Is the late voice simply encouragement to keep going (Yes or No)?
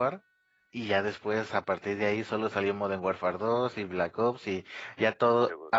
Yes